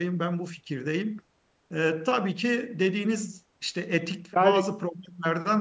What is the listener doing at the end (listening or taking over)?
listening